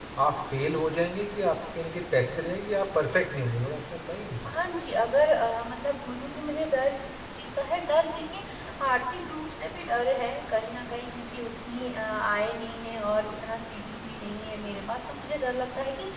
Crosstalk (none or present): none